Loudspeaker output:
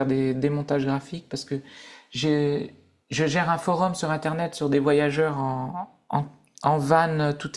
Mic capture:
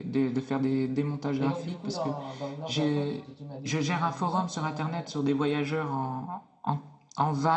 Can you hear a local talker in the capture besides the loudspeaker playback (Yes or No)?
Yes